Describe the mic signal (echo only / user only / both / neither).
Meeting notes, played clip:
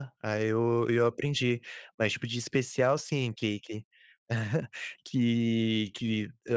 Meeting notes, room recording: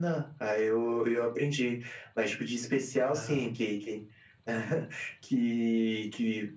both